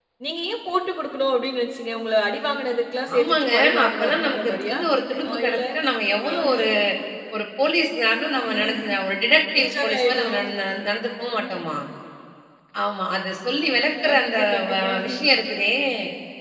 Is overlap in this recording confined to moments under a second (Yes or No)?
No